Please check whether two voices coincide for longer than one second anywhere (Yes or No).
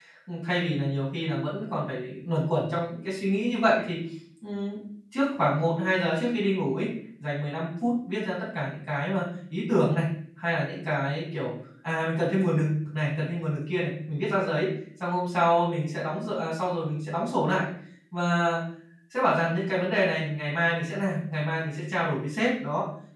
No